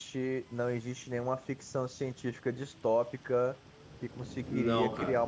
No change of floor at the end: Yes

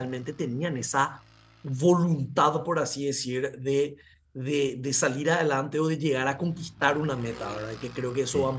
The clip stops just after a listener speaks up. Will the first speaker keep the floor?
Yes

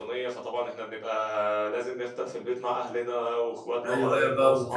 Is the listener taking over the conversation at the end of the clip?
Yes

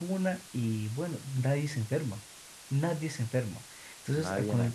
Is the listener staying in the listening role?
Yes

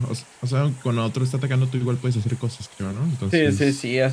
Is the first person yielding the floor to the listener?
Yes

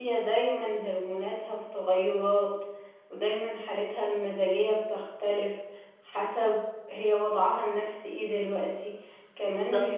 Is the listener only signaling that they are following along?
Yes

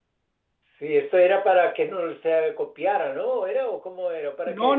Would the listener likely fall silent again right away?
No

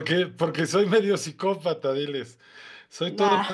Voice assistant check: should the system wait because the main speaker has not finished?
Yes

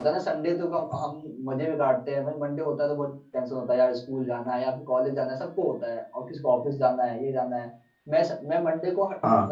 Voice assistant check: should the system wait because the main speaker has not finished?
Yes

